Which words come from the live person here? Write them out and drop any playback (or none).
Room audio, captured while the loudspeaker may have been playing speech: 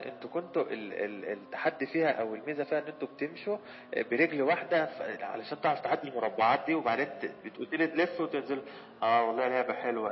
none